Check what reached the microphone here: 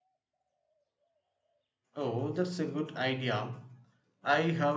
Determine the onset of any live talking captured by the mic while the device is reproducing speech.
1.9 s

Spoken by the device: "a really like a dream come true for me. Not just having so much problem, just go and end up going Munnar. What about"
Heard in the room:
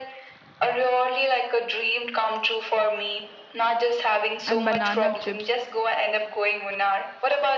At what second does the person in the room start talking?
4.4 s

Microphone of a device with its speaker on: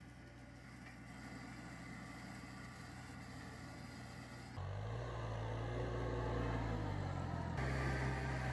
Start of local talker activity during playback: none

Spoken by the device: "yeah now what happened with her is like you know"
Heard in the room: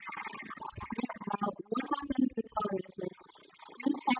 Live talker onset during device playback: none

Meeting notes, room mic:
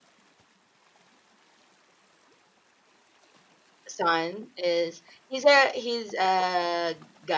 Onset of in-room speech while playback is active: 3.9 s

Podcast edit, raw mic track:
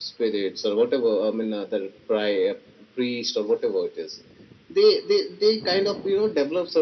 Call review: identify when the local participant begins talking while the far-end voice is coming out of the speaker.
none

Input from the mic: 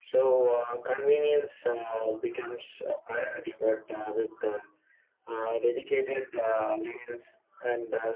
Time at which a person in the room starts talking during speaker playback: none

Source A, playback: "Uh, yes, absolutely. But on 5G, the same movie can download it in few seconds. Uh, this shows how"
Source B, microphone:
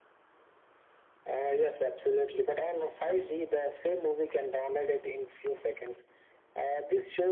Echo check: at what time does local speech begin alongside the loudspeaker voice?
none

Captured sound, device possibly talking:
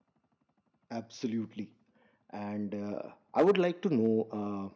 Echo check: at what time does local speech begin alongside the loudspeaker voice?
0.9 s

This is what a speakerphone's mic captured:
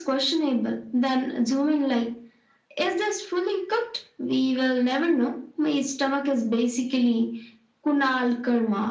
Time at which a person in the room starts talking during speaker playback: none

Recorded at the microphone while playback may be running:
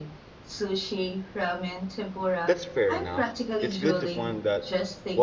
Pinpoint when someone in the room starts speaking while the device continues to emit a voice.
2.4 s

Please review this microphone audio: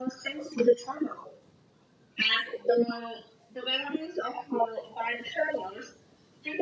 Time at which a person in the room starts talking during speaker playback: none

